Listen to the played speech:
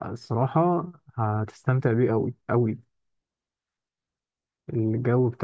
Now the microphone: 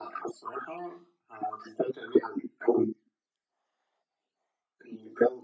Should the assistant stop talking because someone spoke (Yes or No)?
No